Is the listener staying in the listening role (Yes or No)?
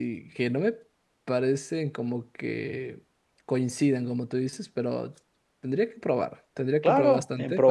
No